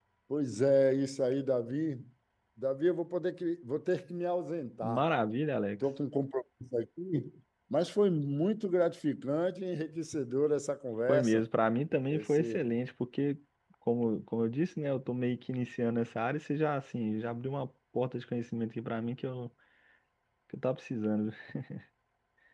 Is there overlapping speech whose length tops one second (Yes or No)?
No